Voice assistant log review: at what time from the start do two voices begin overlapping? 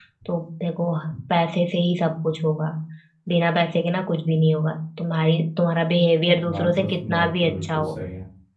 6.4 s

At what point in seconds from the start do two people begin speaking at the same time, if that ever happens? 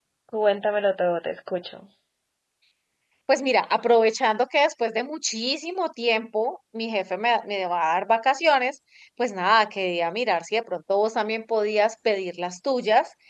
none

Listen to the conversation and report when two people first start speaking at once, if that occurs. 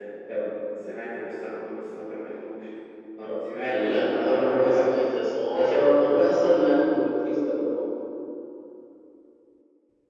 3.7 s

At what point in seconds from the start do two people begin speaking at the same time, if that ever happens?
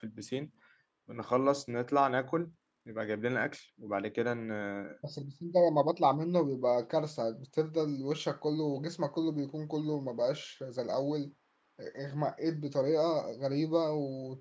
none

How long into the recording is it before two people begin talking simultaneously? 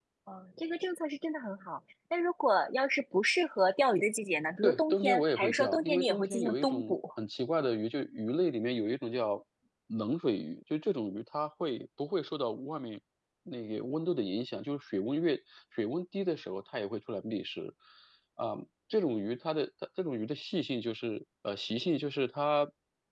4.6 s

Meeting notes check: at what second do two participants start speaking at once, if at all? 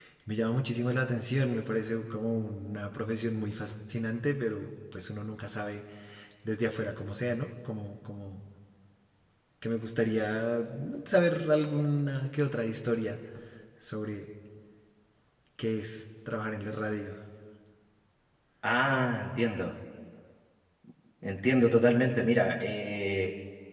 none

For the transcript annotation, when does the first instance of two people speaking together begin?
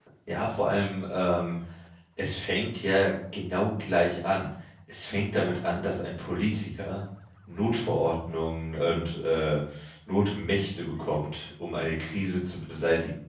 none

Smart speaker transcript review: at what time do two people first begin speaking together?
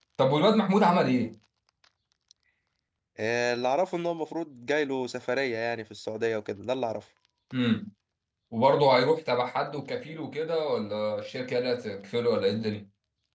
none

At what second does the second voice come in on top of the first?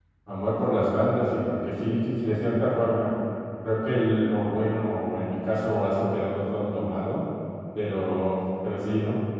none

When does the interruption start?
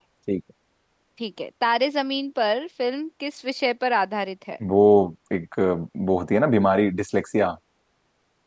none

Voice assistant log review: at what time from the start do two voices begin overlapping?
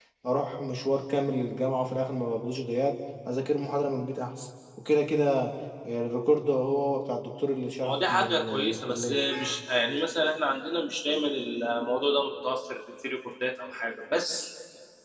7.8 s

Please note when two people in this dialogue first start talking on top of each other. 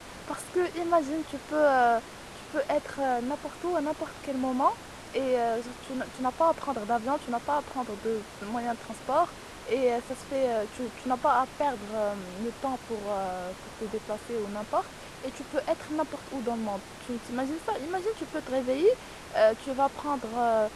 none

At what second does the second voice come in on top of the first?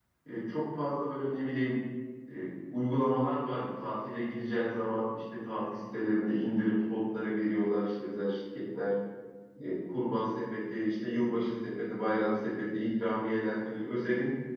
none

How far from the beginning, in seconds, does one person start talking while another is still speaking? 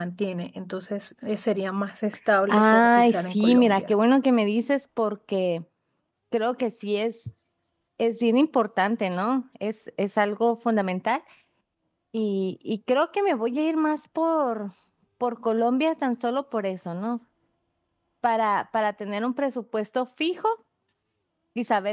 2.5 s

